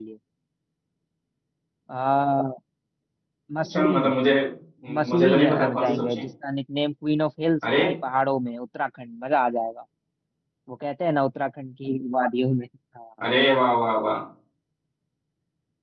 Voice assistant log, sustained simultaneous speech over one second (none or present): present